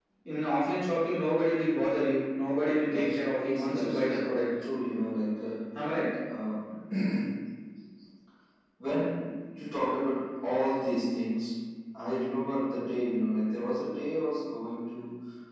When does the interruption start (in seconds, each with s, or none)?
2.9 s